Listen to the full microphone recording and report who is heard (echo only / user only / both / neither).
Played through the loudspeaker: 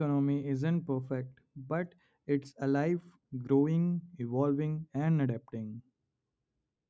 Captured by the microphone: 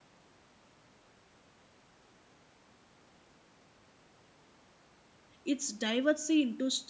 user only